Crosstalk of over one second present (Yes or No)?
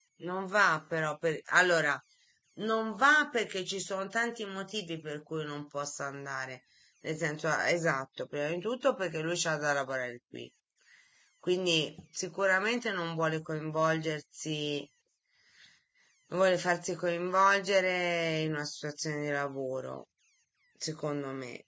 No